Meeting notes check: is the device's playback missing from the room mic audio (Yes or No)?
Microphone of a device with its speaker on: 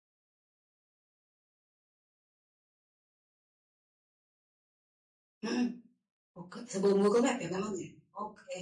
Yes